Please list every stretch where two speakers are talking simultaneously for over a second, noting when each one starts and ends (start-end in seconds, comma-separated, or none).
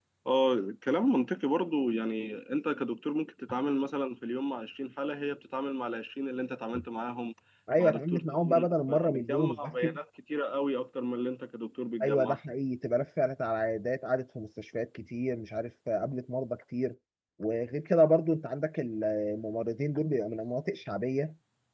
7.8-9.7